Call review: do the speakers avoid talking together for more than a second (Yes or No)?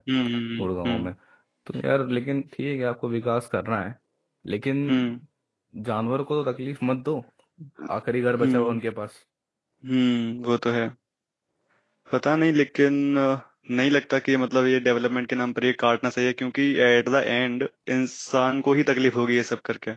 Yes